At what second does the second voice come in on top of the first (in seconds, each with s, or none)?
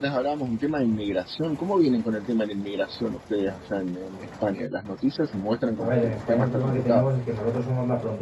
5.8 s